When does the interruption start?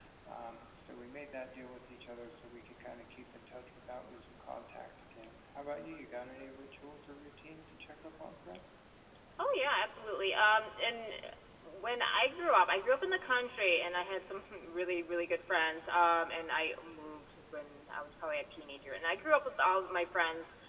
none

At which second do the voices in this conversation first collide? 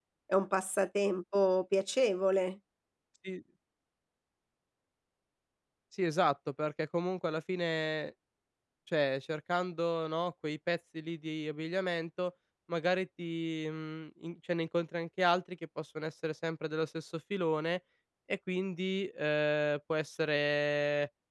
none

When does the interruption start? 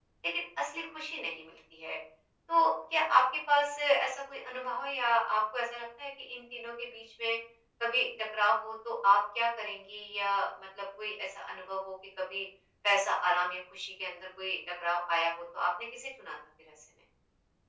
none

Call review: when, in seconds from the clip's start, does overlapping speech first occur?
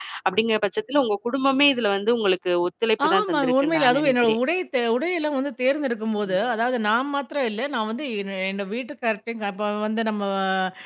3.1 s

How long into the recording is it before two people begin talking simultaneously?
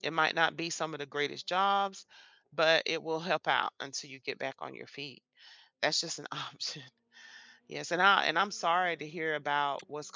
none

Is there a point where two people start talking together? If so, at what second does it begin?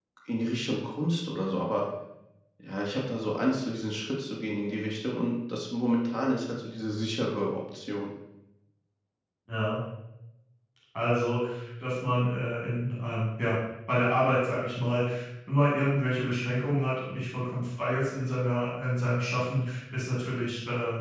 none

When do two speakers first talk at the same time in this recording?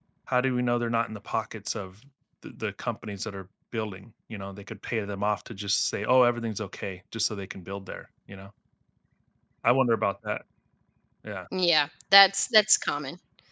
none

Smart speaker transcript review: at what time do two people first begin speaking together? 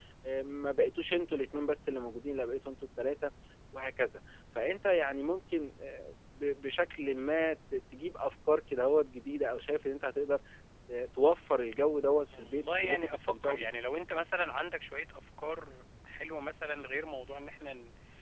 12.3 s

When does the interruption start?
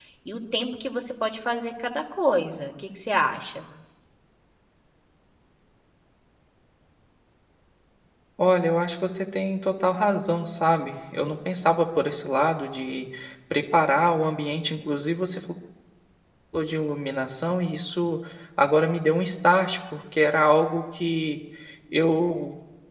none

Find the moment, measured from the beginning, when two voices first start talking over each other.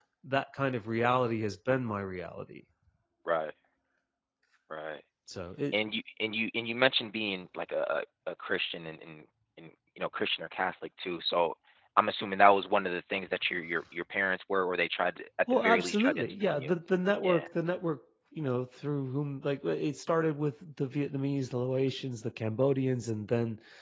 15.5 s

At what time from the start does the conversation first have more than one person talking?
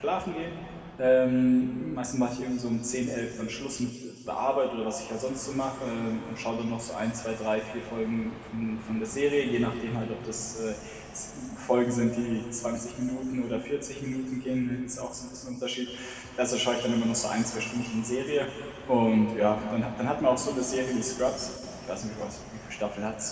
none

